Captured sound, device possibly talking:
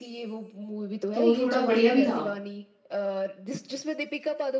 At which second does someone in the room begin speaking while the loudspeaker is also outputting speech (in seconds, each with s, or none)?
1.1 s